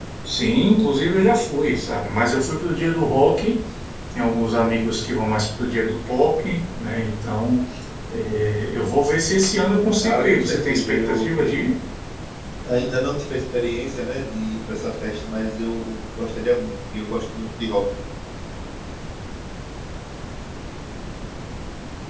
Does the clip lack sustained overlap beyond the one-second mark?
No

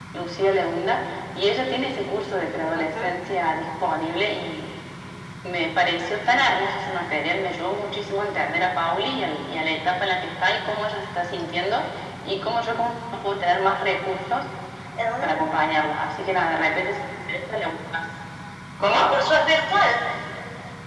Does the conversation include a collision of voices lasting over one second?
No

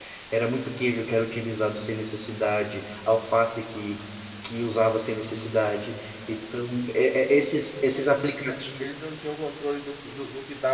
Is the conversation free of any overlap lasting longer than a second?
Yes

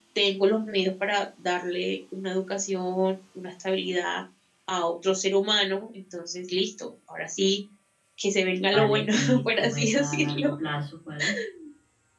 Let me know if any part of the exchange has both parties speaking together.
Yes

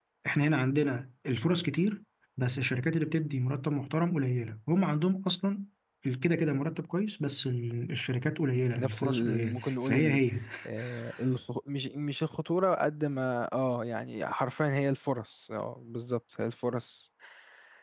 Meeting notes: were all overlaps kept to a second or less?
No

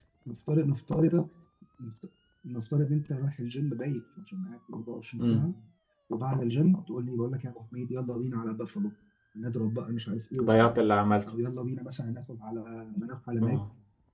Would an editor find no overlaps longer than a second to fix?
Yes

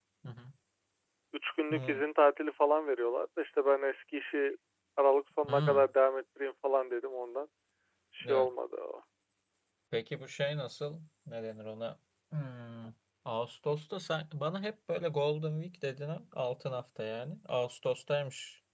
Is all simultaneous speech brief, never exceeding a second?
Yes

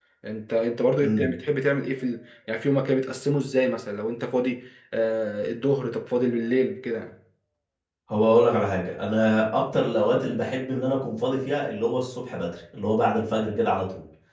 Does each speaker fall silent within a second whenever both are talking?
Yes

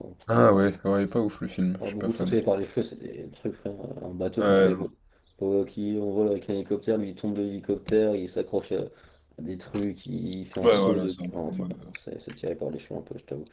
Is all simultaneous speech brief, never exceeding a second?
No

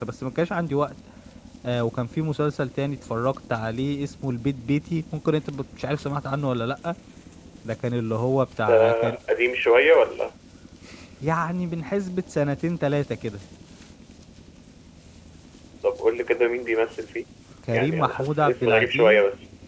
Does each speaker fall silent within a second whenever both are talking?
No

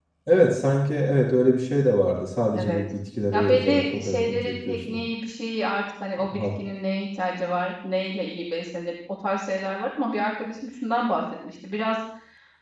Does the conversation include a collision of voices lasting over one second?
Yes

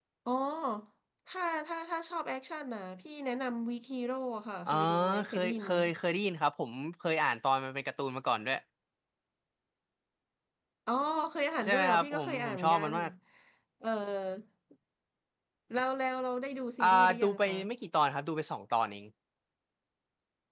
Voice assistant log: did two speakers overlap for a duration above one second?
Yes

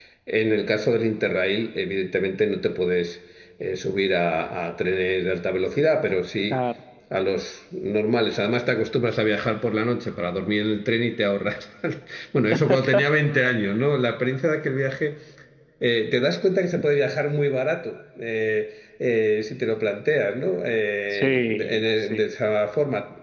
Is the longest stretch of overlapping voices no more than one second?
No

